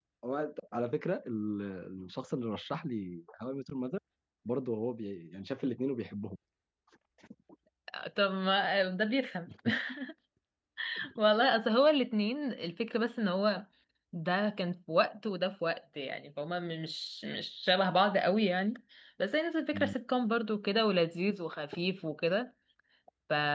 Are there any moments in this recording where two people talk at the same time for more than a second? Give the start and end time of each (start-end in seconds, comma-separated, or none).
none